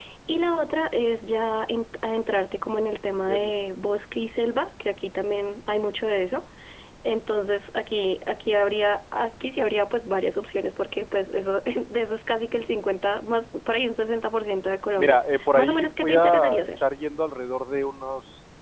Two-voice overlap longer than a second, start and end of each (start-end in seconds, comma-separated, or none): 15.0-16.7